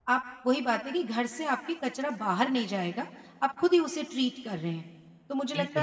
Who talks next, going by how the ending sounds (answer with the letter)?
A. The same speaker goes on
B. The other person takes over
A